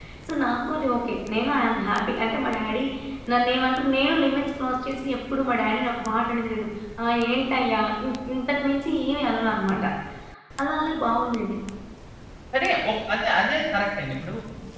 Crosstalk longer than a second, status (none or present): none